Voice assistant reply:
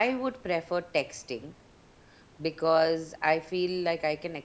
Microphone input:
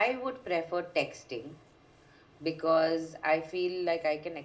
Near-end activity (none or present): none